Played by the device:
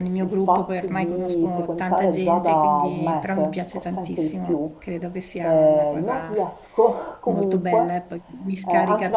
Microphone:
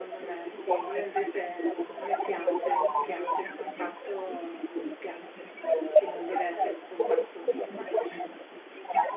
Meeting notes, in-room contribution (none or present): present